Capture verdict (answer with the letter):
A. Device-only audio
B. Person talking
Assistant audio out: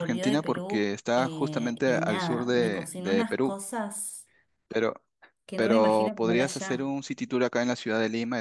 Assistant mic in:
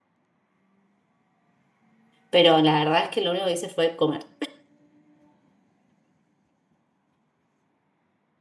B